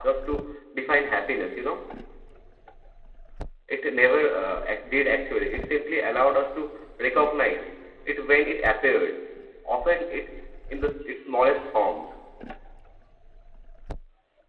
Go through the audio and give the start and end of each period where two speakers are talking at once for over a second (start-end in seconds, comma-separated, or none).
none